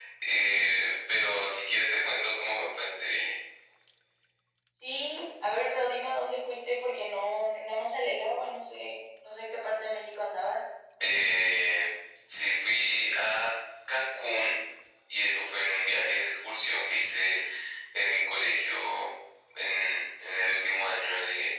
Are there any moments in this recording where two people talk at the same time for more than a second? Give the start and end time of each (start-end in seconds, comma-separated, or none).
none